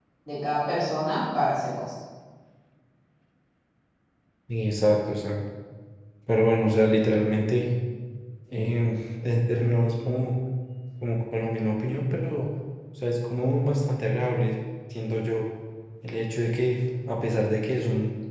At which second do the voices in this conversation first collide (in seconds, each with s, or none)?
none